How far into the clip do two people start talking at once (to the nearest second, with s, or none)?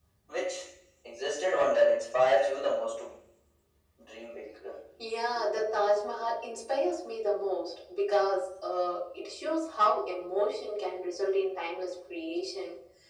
none